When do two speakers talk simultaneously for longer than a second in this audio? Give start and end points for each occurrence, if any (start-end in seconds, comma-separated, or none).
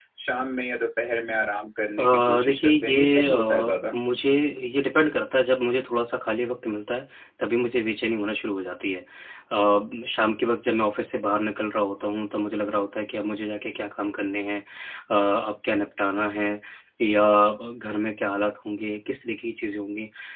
2.0-4.0